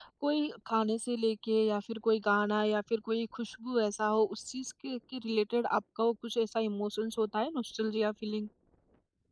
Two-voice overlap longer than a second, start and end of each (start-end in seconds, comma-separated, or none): none